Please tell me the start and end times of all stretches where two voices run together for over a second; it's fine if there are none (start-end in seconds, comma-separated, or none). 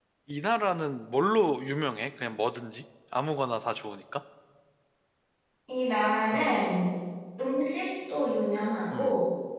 none